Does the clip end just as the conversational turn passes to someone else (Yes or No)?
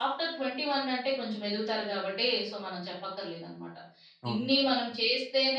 No